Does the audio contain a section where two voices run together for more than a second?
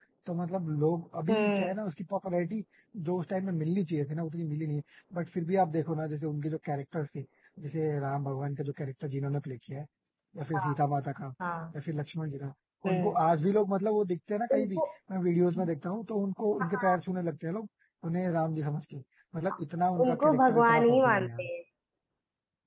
Yes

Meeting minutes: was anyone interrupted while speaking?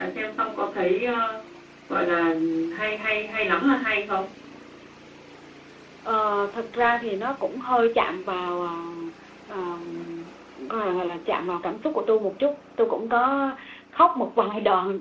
No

